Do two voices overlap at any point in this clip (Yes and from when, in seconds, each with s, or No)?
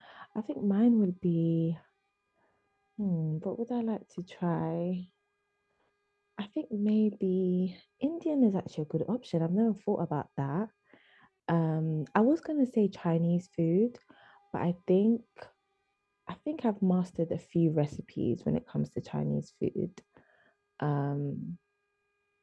No